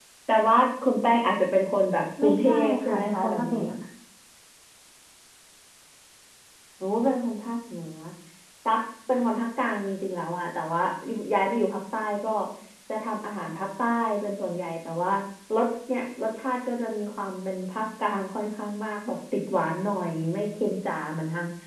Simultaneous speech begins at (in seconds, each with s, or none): 2.2 s